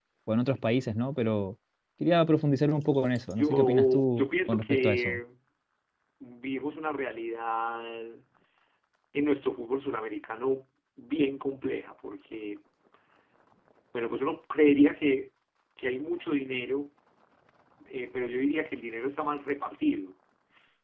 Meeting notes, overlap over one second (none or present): present